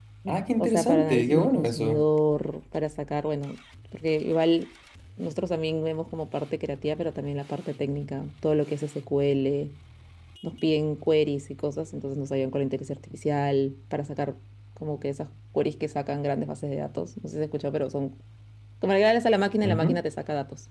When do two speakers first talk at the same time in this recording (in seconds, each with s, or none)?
0.6 s